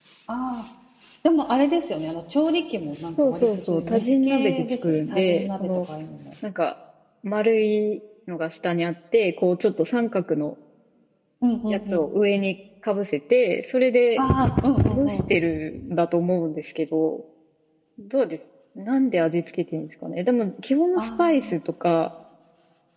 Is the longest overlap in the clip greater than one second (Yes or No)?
Yes